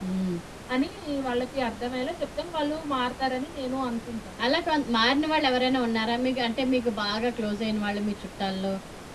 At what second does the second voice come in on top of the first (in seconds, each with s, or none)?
none